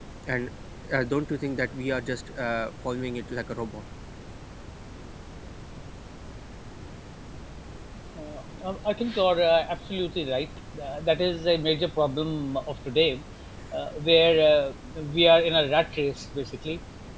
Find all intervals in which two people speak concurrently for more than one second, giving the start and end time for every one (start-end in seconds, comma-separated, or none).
none